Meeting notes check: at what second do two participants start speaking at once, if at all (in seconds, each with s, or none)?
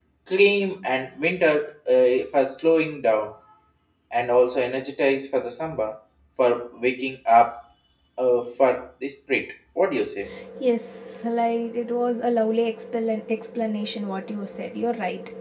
none